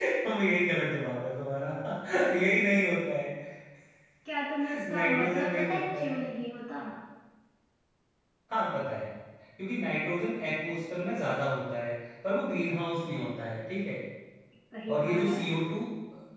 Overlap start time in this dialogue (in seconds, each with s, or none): 4.9 s